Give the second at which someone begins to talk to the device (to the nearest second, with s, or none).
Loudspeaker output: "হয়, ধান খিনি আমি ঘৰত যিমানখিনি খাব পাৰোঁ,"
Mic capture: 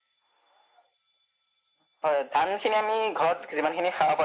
none